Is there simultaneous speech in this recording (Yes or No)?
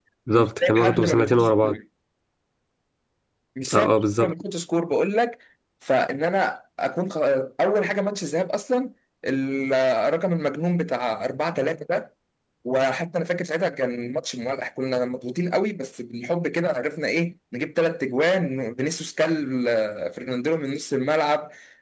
Yes